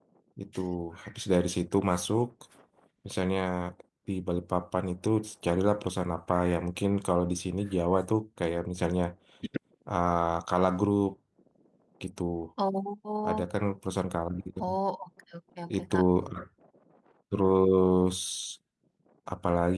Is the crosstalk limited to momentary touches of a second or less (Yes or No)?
Yes